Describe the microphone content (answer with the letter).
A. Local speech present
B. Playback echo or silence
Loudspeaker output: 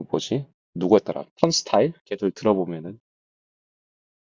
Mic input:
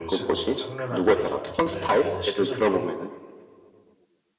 A